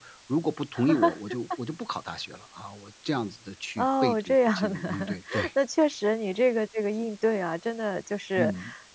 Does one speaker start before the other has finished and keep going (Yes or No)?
Yes